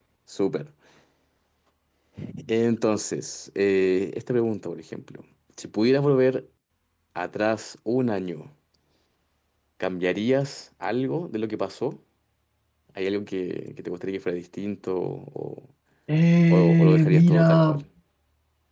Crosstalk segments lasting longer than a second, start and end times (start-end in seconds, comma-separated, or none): 16.5-17.8